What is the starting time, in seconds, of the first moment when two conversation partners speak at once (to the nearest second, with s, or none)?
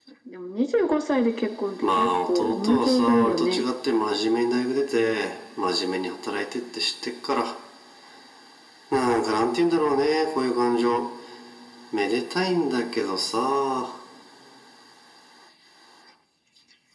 2 s